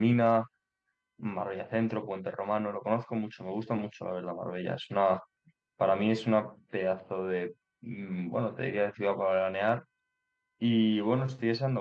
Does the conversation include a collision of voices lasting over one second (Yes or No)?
No